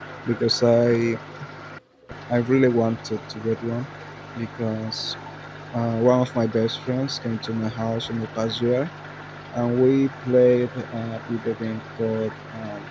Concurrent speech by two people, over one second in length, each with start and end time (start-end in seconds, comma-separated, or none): none